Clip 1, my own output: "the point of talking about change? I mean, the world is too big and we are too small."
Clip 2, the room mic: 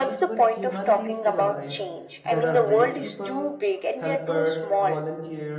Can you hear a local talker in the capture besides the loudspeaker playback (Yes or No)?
Yes